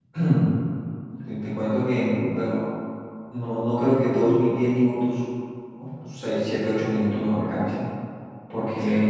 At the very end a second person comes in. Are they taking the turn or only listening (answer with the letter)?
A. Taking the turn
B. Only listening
B